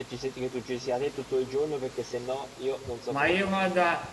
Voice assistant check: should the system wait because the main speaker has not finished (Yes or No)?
No